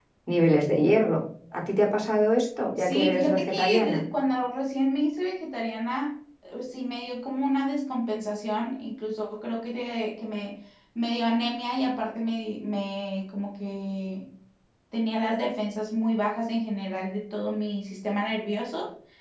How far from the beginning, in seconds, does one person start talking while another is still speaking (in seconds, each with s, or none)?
2.8 s